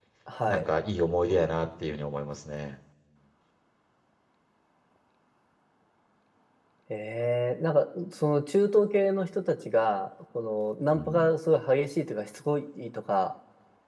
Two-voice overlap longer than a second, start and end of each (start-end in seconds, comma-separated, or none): none